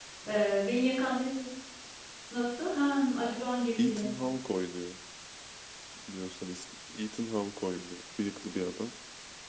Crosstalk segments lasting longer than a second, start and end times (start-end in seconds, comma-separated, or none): none